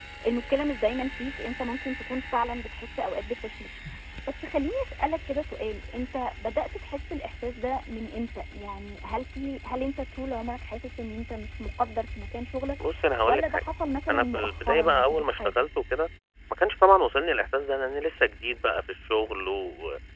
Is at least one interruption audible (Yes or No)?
Yes